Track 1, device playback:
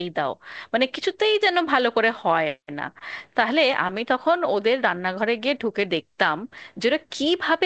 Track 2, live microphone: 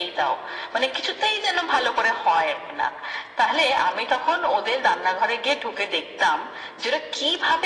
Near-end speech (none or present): none